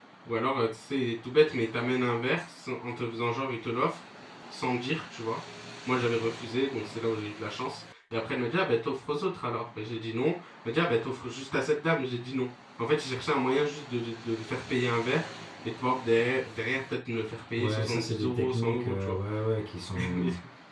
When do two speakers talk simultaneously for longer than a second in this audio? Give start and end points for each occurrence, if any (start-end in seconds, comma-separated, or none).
17.6-19.1